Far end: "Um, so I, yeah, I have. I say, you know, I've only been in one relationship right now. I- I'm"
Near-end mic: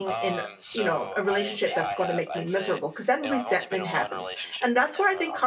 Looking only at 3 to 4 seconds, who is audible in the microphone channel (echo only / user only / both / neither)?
both